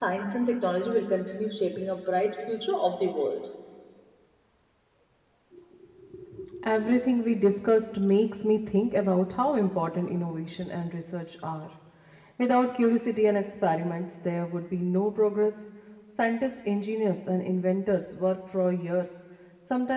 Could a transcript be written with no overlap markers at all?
Yes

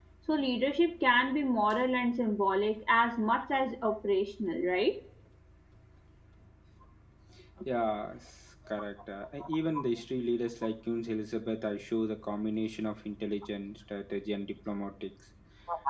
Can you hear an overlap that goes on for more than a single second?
No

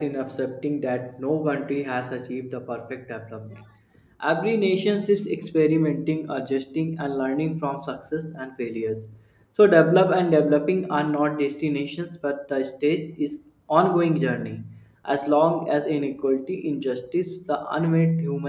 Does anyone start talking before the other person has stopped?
No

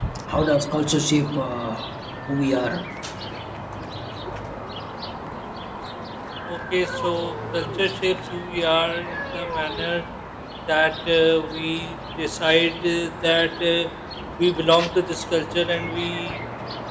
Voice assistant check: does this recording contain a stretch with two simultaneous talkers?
No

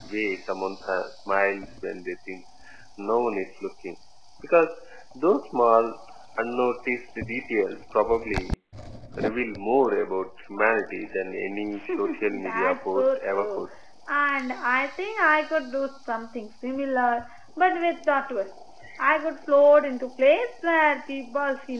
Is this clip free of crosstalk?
No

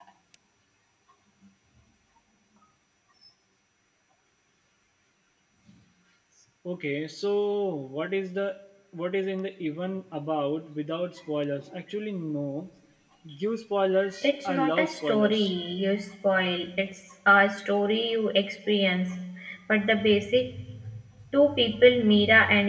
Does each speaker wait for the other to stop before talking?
No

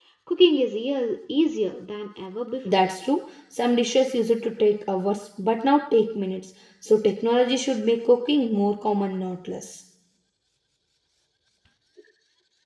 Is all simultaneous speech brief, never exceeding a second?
Yes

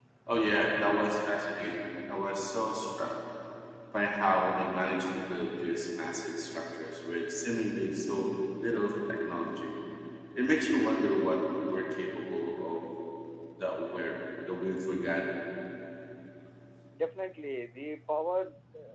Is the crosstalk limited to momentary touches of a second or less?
Yes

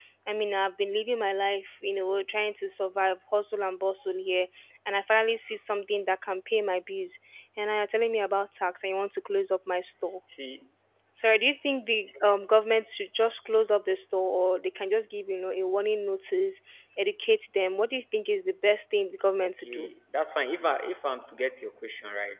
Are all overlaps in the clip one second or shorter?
Yes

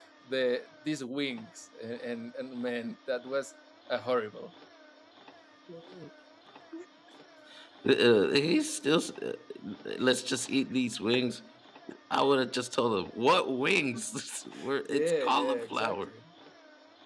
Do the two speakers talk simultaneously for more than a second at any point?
Yes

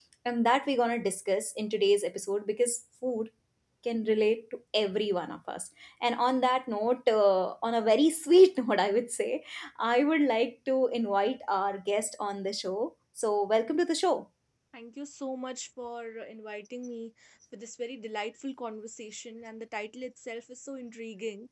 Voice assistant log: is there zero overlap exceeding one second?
Yes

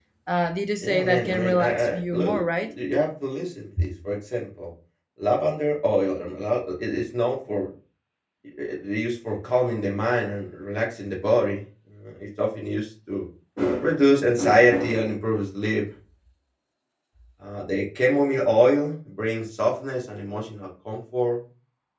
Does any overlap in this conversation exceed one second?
Yes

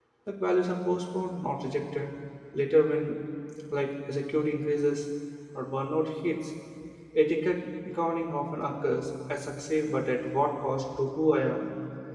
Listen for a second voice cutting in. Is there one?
No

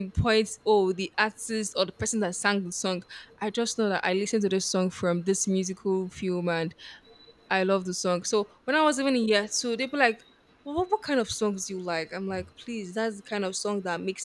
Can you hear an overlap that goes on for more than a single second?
No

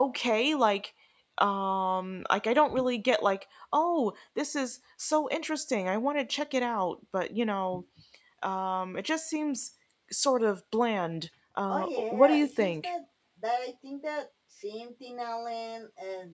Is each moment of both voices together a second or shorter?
No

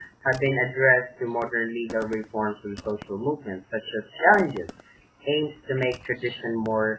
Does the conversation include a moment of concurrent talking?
No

